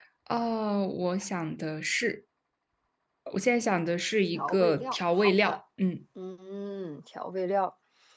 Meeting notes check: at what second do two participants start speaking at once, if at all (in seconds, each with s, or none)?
4.3 s